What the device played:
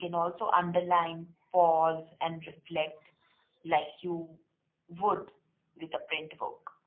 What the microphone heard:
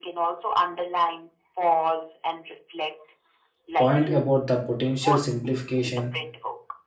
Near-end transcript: point about the potential simplification.

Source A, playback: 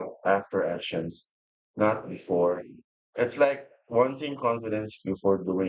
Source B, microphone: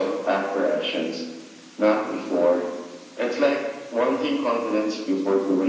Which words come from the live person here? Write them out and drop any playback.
none

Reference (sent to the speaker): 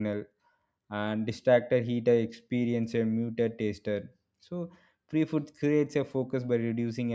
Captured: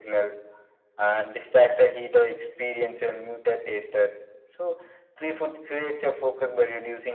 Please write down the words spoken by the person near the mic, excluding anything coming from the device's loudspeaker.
none

